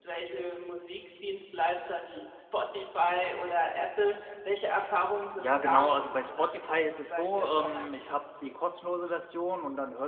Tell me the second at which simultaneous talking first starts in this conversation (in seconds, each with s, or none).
5.4 s